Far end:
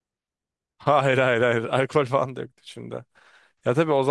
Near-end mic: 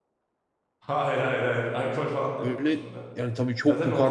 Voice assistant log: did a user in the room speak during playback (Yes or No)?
Yes